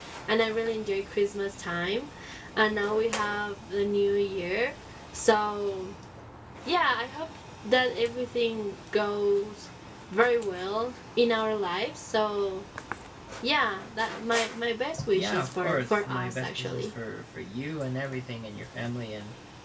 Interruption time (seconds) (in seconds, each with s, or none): 15.0 s